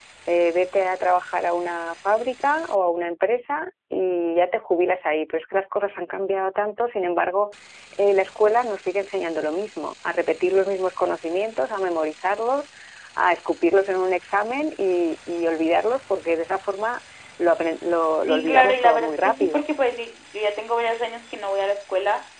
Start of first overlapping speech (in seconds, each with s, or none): 18.2 s